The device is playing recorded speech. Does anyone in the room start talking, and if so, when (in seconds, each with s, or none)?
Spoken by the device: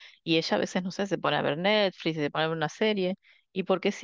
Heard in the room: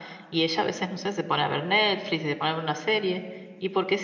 none